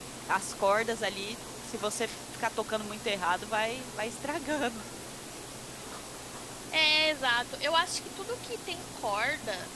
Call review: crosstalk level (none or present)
none